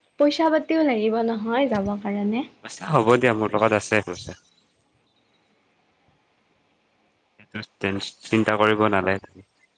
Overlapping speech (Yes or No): No